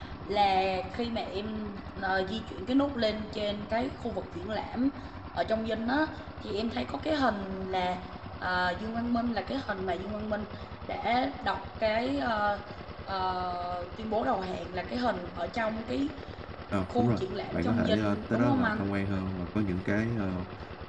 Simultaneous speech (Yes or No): Yes